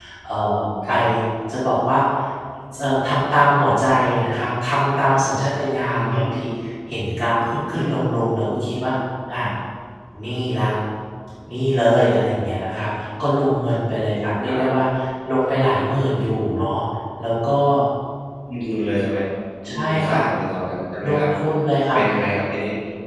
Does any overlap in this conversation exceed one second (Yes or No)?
No